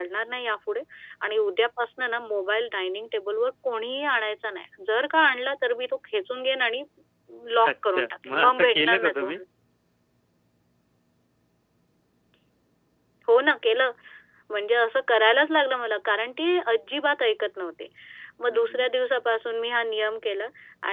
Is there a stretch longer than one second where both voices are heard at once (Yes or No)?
Yes